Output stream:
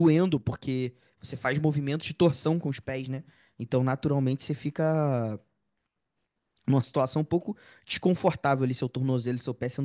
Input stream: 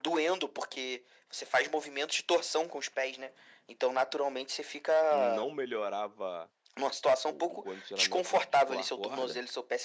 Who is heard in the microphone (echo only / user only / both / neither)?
both